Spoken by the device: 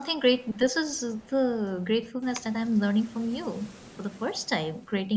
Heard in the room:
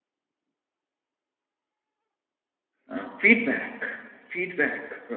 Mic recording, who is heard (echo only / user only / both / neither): user only